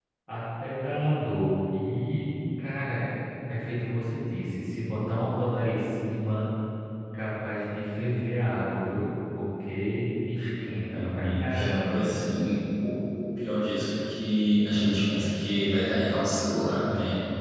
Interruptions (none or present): present